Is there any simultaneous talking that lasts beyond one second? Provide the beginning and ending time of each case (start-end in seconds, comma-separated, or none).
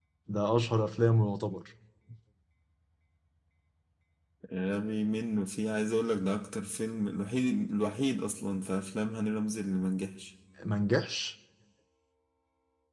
none